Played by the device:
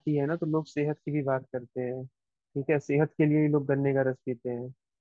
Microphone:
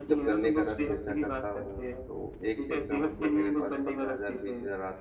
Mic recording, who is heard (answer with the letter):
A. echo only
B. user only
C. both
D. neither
C